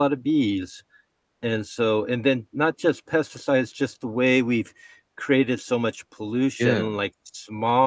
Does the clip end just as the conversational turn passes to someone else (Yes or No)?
No